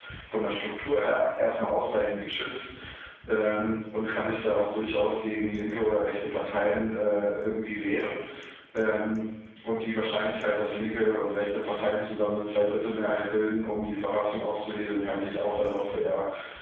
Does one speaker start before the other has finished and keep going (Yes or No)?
No